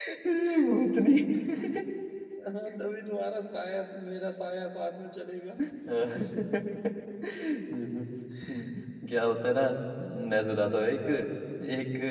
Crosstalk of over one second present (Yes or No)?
No